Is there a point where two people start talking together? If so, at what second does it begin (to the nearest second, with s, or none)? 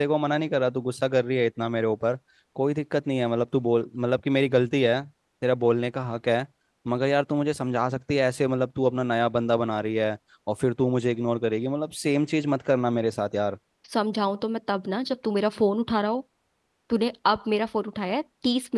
none